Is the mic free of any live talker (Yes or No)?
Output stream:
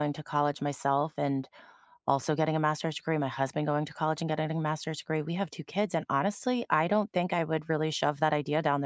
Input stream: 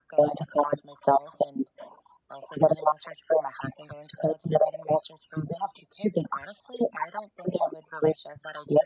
Yes